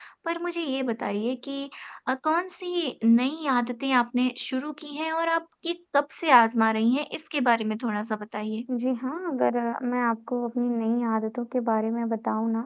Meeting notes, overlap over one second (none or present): none